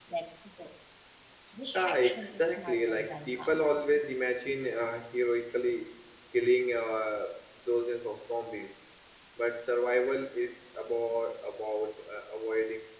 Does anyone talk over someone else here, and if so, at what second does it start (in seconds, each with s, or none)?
1.7 s